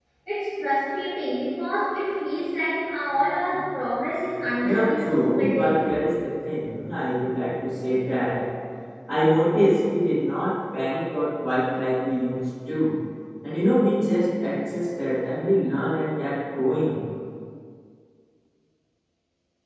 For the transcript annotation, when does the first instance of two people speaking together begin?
4.6 s

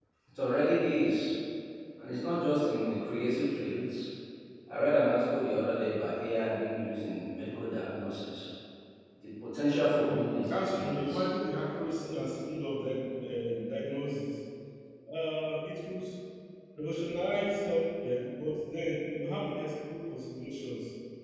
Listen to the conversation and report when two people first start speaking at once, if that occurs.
9.9 s

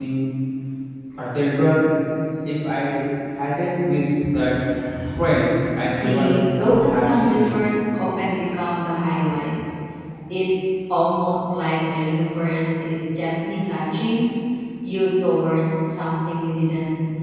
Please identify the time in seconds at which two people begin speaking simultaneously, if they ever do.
5.8 s

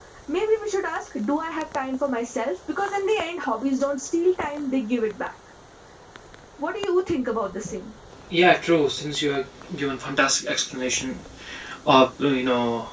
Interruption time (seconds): none

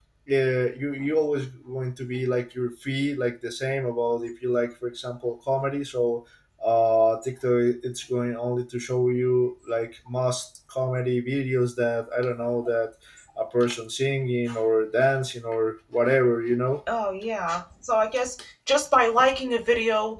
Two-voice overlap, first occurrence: none

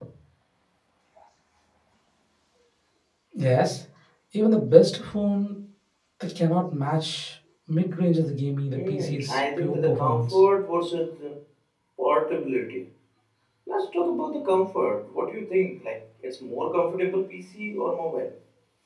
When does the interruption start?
8.7 s

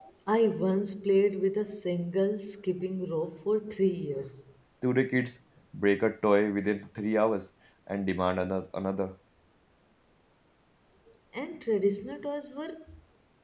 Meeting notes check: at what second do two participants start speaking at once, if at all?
none

